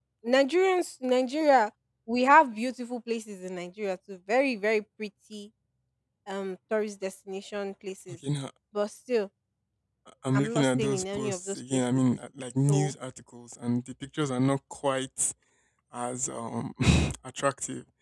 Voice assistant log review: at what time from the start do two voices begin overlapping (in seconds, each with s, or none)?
10.3 s